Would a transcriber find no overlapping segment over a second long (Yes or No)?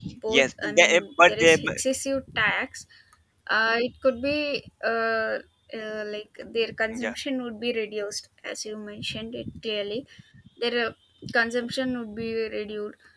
No